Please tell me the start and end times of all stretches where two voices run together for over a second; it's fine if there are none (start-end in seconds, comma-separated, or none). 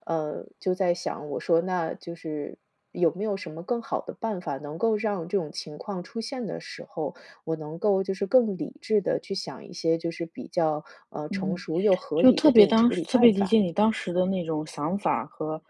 12.2-13.5